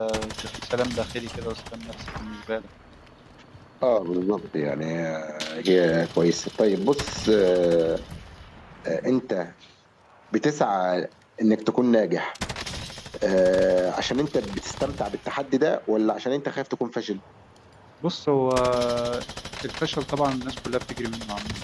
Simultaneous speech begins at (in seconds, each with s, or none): none